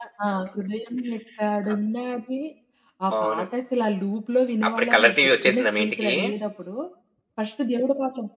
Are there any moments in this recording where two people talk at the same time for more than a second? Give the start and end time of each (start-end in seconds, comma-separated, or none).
4.7-6.1